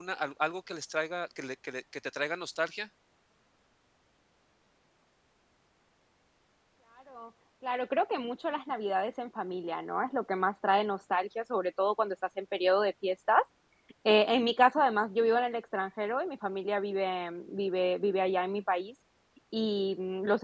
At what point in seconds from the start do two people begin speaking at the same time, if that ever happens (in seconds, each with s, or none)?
none